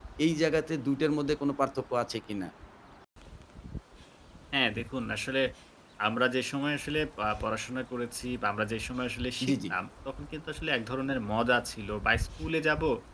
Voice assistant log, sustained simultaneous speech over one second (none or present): none